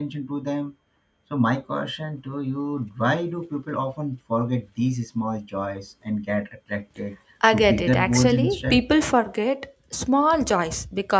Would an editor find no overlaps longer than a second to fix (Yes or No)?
No